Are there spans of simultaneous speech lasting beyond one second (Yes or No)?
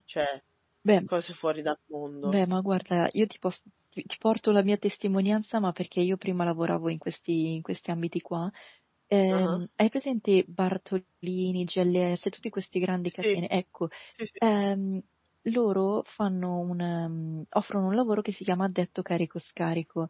No